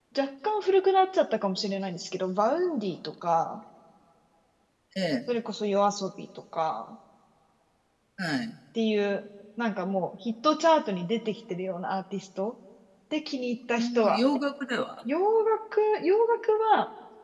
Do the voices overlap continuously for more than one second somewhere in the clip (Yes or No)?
No